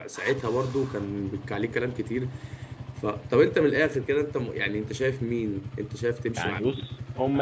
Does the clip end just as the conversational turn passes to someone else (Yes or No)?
Yes